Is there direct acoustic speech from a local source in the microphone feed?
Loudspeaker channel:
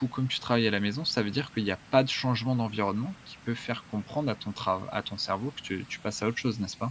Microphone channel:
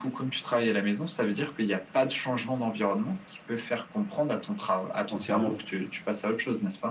Yes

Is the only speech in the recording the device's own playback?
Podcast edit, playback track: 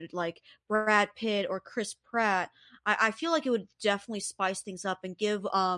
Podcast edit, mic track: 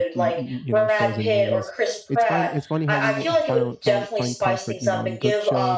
No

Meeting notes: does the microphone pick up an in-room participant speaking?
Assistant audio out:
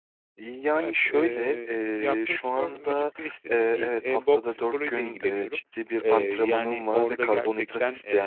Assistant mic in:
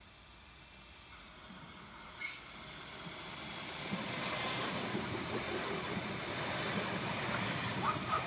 No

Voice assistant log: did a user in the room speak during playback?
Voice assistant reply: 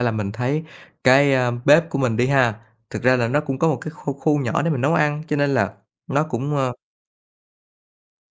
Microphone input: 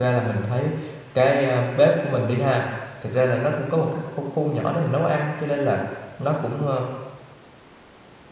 No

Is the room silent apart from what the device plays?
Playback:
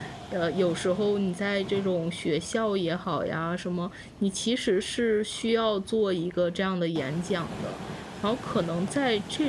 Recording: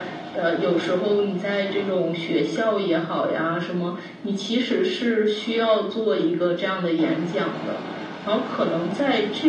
Yes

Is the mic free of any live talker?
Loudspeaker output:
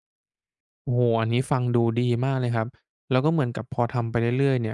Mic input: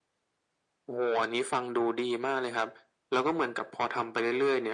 Yes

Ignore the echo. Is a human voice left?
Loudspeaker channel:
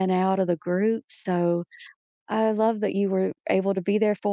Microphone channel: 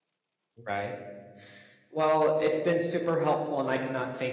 Yes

